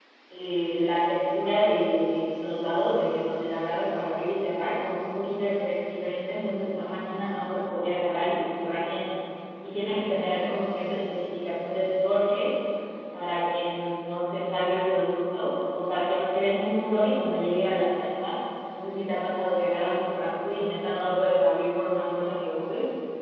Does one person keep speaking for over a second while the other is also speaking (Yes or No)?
No